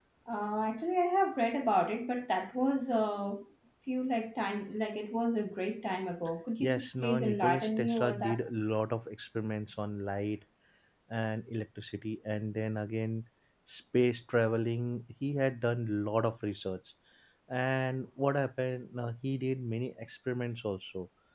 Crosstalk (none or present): present